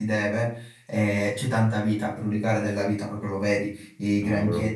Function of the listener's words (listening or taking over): listening